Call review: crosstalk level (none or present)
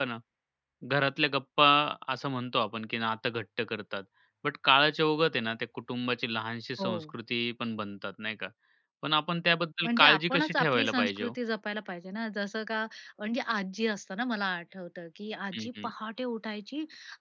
present